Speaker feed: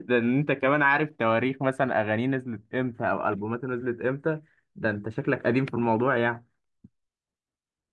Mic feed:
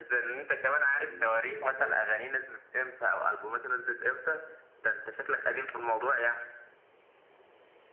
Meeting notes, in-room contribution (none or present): present